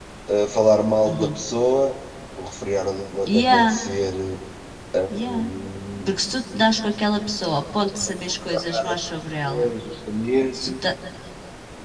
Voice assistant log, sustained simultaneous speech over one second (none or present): none